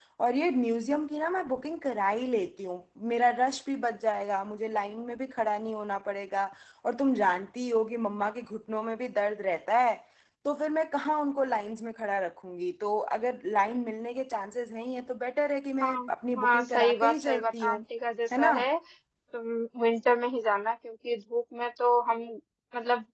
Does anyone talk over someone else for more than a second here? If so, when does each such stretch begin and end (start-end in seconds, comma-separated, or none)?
16.4-17.8